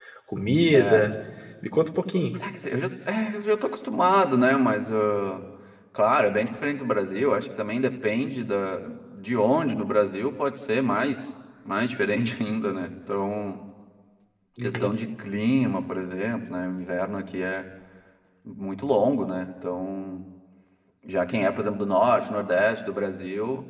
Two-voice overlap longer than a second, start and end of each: none

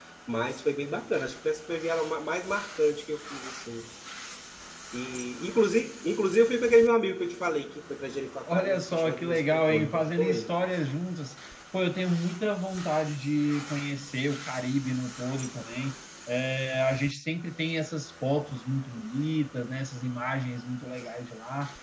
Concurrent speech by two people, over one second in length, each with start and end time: 8.5-10.5

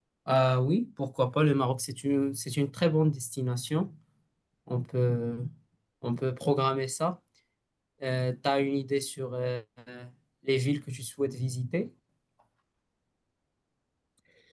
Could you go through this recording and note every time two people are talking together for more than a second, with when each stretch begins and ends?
none

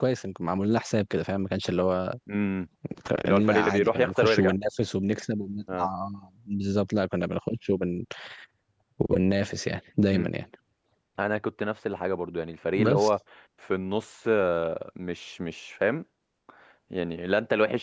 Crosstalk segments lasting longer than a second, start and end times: 3.2-4.5

